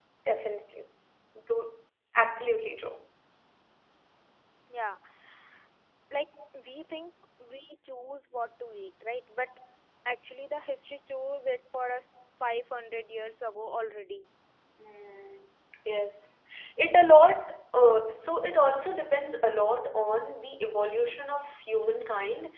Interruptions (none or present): none